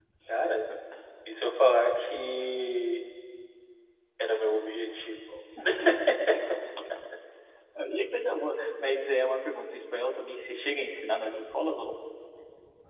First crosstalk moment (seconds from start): none

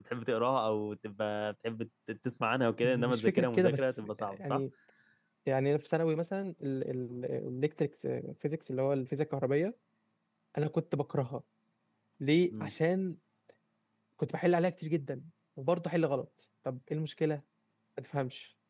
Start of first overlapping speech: 3 s

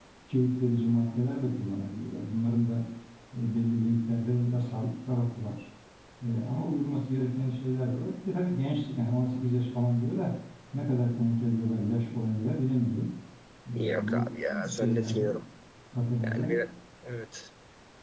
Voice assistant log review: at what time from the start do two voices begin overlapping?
14 s

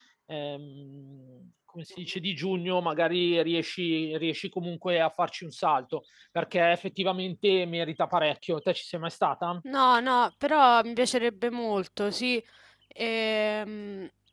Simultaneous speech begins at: none

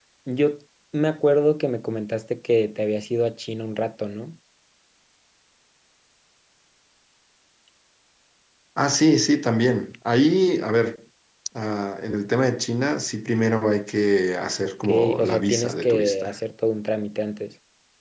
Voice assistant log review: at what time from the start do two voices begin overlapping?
15 s

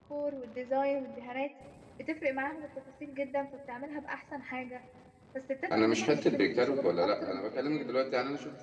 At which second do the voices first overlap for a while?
6 s

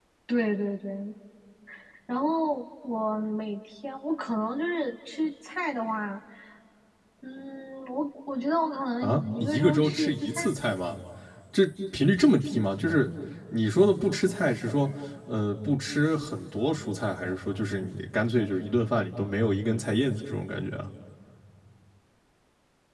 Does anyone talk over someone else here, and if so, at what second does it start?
9 s

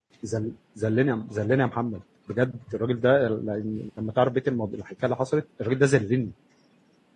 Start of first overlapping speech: none

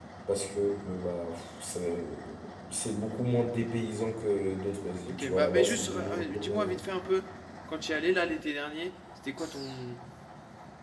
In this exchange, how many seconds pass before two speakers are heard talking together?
5 s

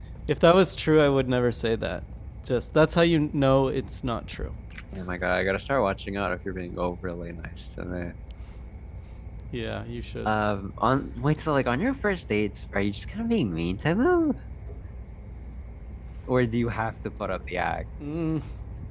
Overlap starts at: none

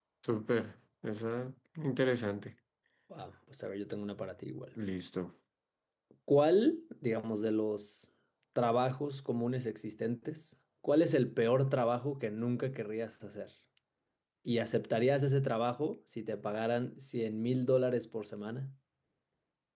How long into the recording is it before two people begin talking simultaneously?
none

